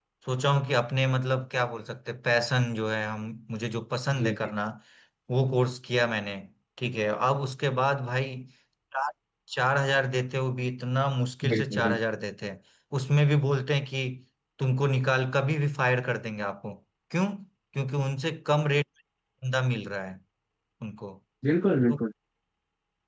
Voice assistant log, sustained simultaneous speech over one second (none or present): none